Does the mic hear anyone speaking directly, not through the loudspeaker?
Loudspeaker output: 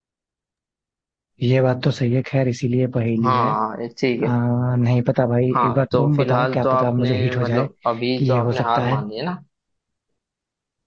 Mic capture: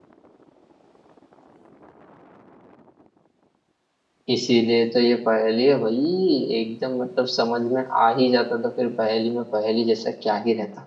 Yes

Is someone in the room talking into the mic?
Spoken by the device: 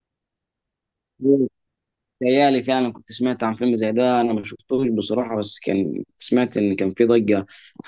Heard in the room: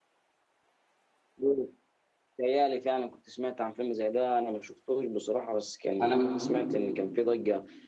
Yes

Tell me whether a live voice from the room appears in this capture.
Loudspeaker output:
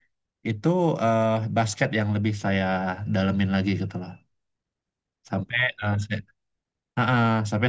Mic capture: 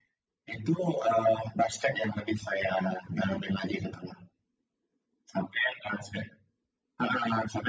No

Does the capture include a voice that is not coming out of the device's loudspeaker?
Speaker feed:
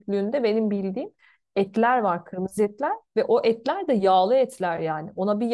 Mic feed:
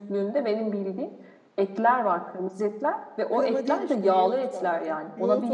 Yes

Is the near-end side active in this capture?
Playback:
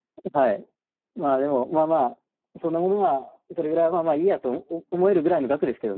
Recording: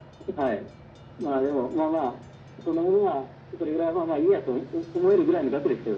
No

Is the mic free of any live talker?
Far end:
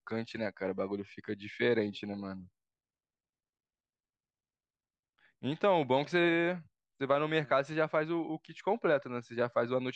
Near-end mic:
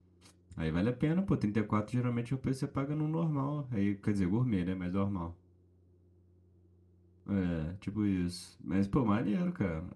No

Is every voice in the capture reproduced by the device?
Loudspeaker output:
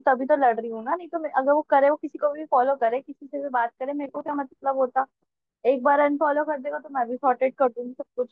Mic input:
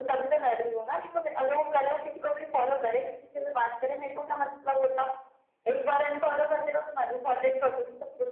Yes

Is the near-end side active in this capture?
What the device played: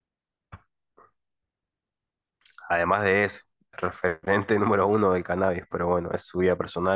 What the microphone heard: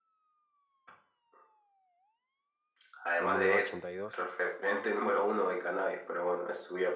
Yes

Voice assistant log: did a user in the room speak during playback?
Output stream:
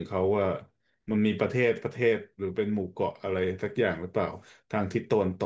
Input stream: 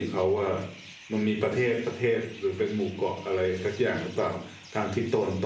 No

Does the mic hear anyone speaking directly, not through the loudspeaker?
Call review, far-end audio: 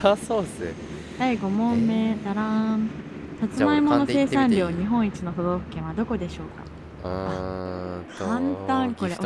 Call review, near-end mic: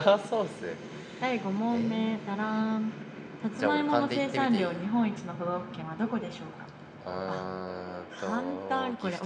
No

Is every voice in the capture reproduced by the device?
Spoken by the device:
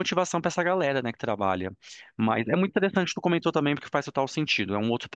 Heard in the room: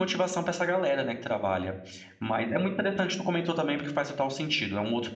Yes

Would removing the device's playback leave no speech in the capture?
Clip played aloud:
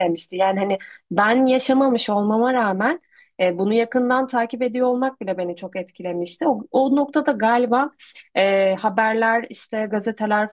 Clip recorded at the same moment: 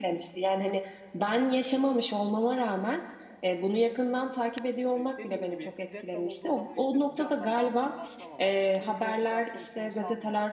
No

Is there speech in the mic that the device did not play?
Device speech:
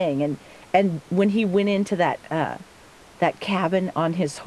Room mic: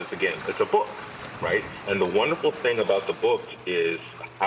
Yes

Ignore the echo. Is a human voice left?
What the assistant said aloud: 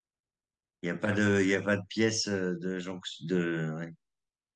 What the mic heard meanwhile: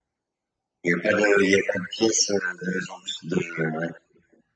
No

